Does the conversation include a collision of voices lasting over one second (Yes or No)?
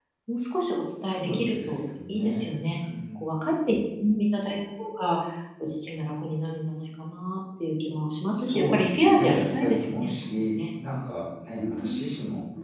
Yes